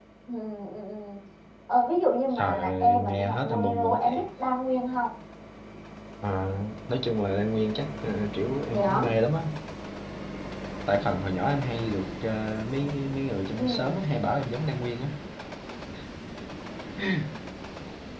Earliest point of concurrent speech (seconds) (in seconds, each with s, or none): 2.4 s